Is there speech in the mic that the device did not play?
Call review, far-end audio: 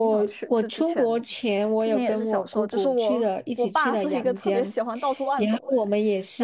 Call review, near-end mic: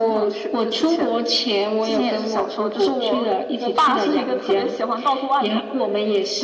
No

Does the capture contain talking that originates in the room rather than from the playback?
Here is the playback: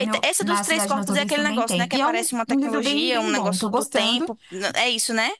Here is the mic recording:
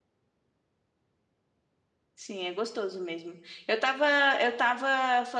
Yes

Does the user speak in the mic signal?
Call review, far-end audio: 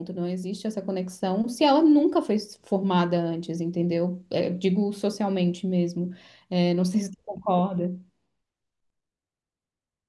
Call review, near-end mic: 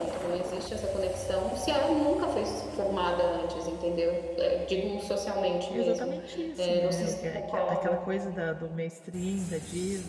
Yes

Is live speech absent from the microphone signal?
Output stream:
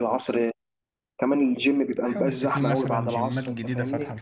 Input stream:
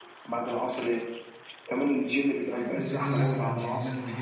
Yes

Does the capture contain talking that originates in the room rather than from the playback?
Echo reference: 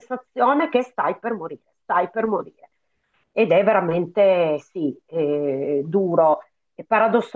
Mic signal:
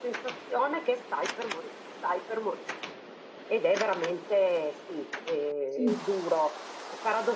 Yes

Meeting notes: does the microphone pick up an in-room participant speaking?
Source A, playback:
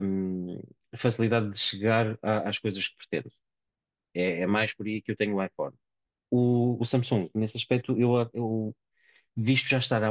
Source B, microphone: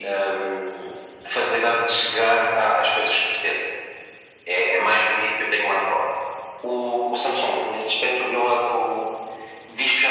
No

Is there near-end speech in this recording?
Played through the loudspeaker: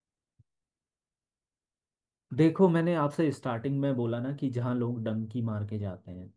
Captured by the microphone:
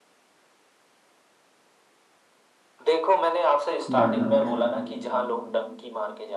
Yes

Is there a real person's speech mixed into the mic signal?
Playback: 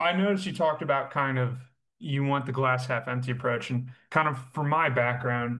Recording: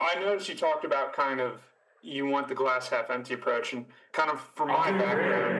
Yes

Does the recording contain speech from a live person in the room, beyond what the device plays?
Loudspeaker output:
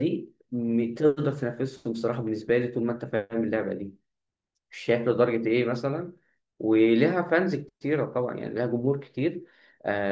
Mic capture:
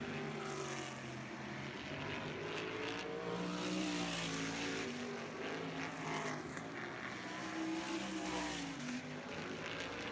No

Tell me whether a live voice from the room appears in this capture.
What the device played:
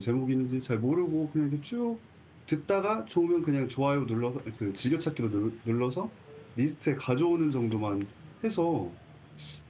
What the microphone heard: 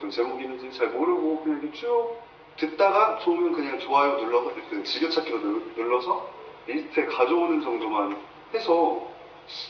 No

